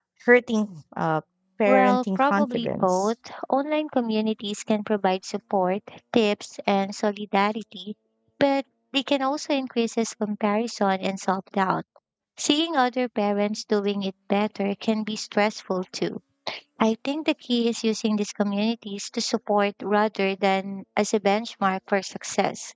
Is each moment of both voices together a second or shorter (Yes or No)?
No